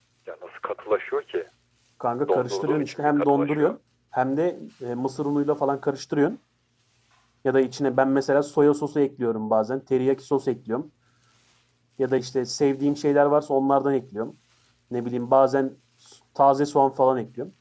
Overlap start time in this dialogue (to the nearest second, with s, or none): 2 s